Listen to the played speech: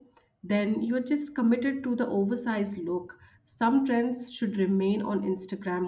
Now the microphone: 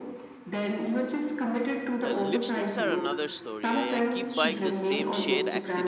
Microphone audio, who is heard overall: both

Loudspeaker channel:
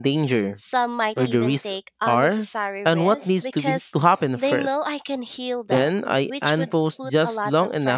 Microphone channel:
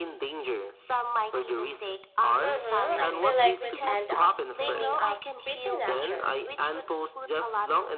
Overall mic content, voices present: both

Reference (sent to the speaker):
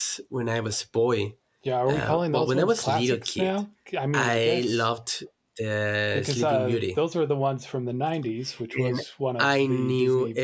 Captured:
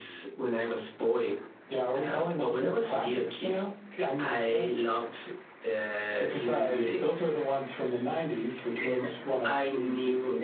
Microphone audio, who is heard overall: echo only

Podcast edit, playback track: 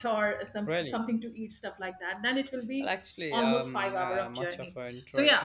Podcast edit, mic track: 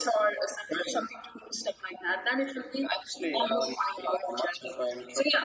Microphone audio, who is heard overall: echo only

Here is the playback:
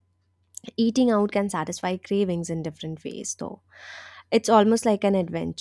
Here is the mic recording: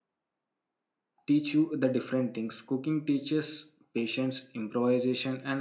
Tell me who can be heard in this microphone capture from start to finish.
user only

